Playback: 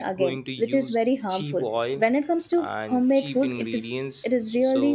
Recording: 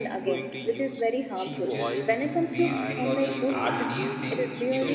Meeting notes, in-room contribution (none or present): present